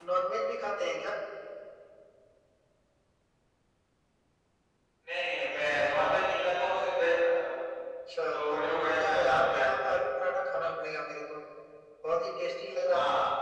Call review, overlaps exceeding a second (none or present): present